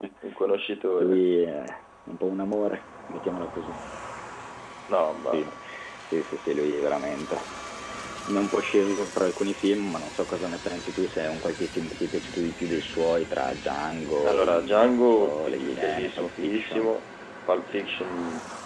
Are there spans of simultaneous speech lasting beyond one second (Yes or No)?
Yes